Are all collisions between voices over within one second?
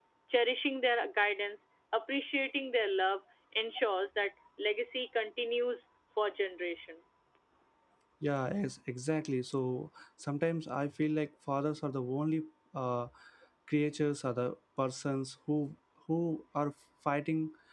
Yes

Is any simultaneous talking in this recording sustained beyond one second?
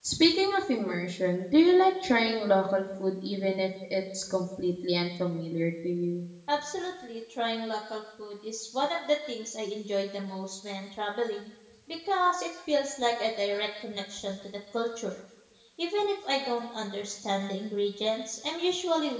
No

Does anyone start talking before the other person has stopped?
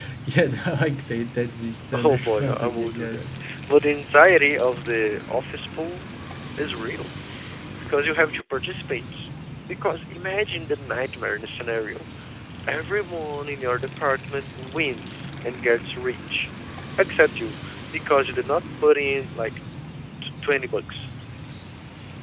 Yes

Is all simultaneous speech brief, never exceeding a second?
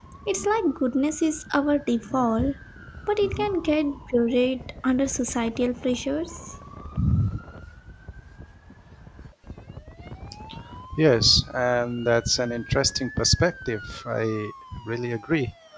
Yes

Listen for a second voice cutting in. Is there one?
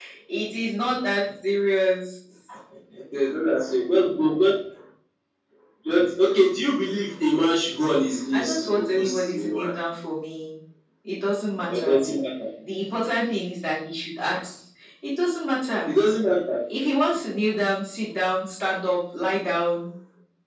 Yes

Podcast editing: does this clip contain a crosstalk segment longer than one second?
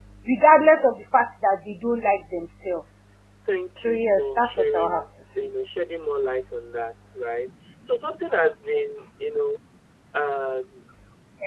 Yes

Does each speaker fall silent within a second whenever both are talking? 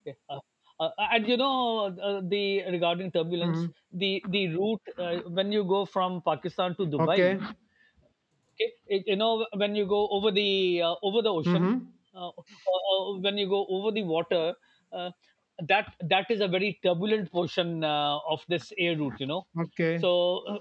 Yes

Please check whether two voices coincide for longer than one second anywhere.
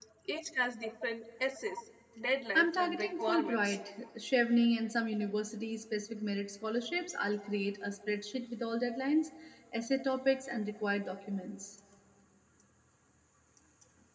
Yes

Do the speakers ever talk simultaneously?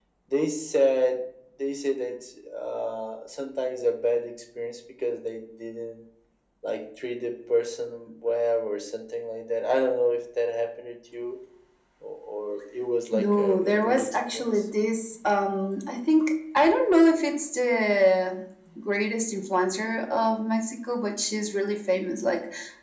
Yes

